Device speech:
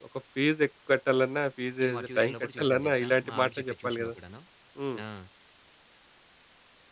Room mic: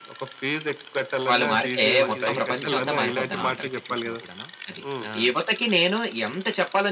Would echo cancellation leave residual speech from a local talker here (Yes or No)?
Yes